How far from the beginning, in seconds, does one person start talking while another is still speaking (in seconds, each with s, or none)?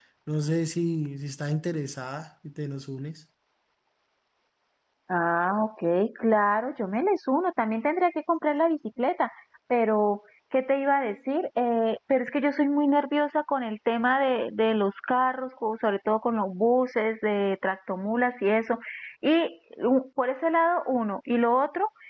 none